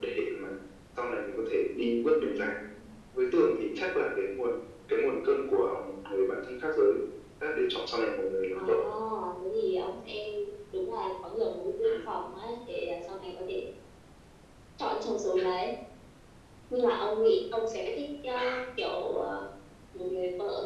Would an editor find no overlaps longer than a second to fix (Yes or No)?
Yes